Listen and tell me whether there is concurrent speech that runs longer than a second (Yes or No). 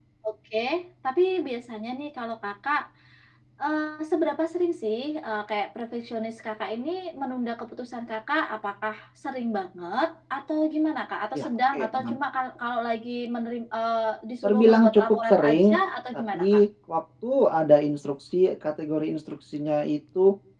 Yes